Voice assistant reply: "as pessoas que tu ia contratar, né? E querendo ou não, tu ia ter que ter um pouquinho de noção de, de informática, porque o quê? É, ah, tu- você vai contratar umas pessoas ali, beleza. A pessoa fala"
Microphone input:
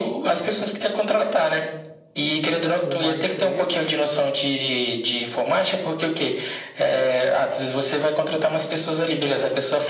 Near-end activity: present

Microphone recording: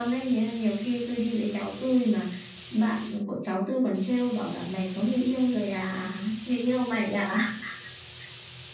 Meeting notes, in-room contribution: none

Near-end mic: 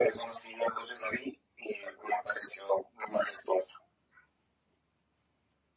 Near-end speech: none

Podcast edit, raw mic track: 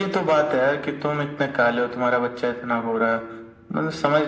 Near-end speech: none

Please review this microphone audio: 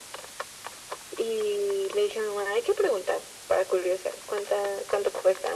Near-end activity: none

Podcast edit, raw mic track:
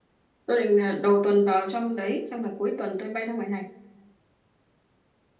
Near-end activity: present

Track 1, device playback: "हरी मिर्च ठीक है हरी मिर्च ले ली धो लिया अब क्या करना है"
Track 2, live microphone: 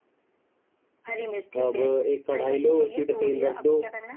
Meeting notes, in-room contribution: present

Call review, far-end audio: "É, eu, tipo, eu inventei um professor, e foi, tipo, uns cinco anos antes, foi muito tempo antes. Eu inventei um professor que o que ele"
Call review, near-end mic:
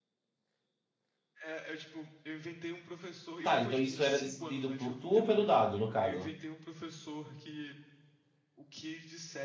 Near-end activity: present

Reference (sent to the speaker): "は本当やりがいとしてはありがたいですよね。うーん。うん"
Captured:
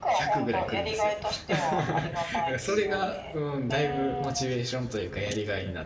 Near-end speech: present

